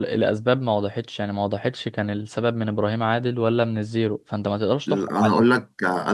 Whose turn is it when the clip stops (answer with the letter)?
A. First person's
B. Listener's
B